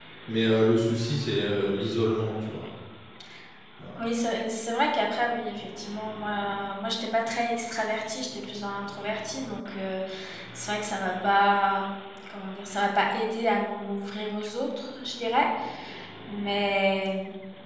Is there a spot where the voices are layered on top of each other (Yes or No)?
No